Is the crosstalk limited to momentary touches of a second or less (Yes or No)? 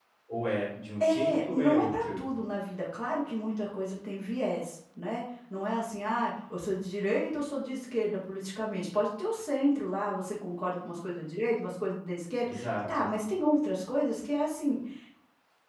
No